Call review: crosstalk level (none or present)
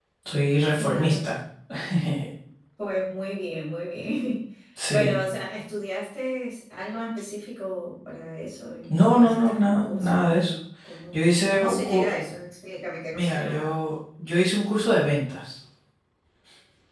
present